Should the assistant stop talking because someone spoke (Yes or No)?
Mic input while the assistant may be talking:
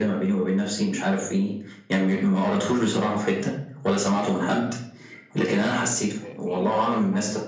Yes